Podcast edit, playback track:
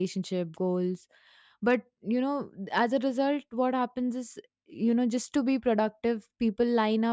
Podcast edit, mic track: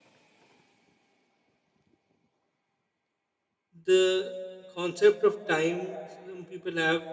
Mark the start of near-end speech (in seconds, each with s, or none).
3.8 s